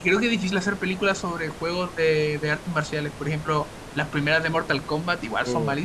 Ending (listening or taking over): taking over